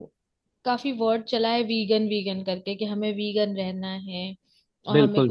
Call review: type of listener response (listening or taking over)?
listening